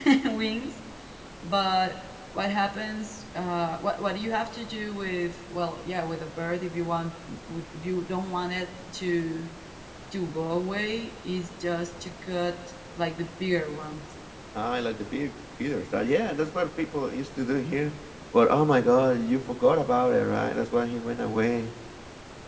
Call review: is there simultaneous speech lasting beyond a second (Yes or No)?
No